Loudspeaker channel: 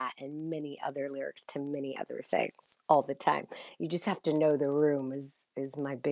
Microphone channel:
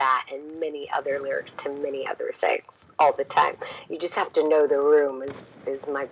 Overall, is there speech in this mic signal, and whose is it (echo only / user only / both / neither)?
echo only